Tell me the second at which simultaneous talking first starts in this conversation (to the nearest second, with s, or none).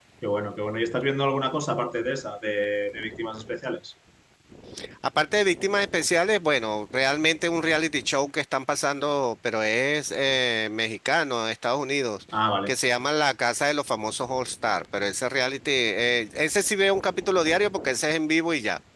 none